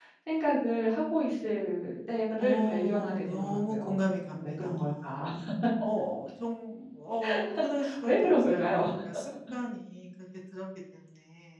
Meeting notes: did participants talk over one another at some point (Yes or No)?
Yes